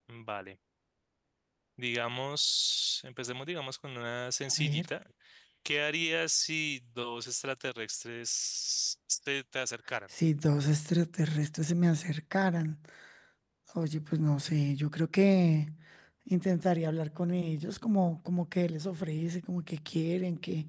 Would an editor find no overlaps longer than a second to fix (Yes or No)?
Yes